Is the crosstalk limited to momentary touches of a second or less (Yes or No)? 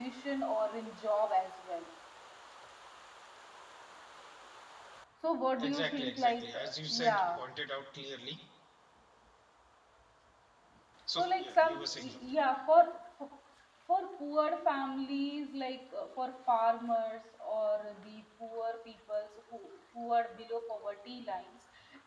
No